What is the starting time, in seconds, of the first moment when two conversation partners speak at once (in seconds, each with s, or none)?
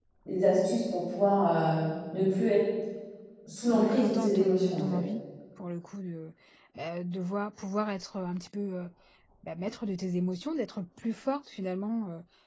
3.7 s